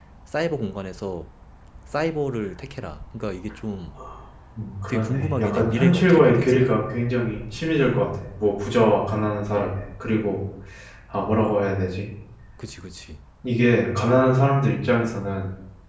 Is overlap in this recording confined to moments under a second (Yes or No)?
No